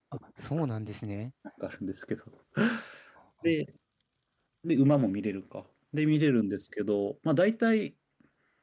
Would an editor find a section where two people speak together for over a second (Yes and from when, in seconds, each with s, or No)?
No